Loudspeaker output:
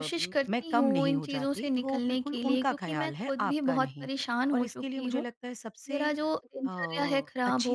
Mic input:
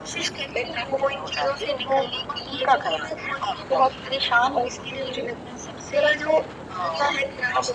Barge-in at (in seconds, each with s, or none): none